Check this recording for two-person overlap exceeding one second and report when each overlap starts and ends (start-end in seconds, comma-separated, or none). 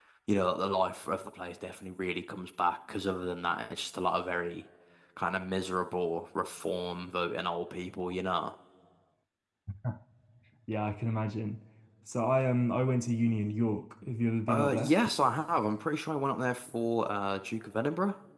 none